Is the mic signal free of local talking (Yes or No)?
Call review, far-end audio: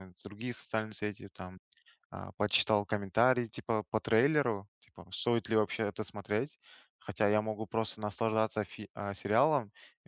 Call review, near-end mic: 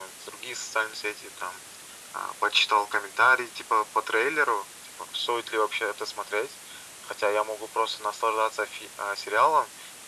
Yes